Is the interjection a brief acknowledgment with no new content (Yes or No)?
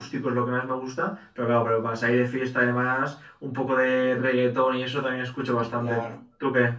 No